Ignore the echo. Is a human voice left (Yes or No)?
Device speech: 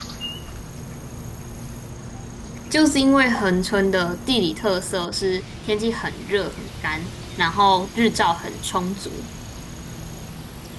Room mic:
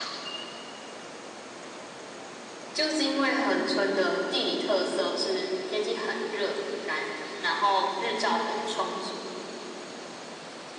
No